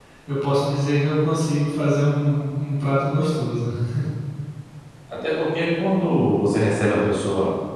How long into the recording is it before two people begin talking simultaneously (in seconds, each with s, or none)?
none